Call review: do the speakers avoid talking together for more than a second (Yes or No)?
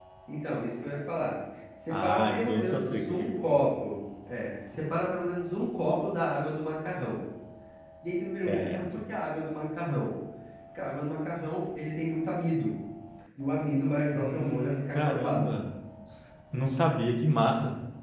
No